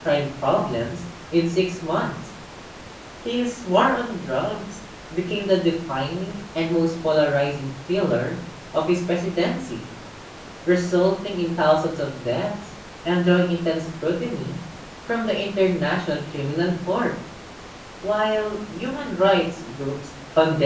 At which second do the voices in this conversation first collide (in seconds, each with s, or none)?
none